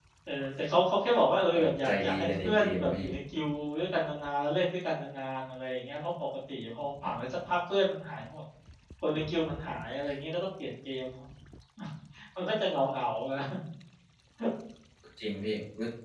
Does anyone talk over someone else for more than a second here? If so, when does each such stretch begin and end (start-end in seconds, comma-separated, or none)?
1.5-3.1